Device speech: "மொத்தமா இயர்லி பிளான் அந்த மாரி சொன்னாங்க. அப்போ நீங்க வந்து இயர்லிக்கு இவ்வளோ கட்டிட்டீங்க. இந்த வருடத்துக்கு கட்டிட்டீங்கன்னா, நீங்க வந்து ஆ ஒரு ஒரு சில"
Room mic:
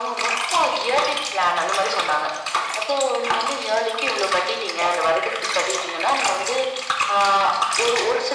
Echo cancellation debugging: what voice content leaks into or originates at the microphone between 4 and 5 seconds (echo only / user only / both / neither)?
echo only